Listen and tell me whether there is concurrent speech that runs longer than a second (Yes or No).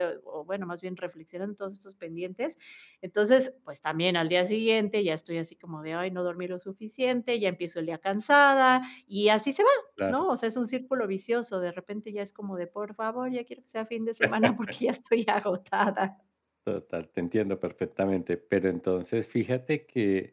No